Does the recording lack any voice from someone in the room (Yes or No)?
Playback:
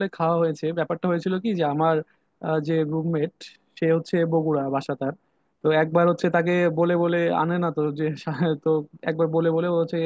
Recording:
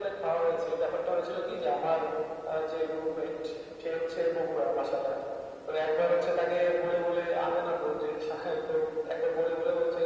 Yes